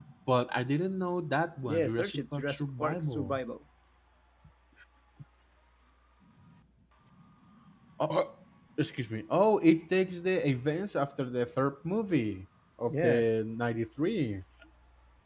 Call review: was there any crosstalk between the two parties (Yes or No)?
Yes